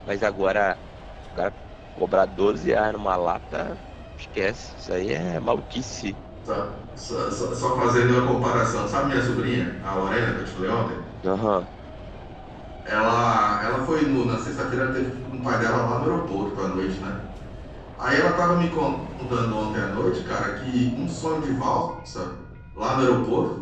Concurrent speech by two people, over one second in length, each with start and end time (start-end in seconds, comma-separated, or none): none